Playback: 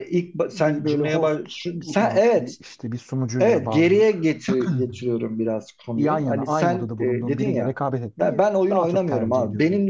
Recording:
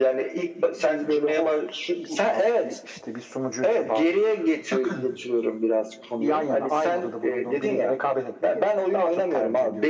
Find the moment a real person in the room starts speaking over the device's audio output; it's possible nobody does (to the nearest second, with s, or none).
none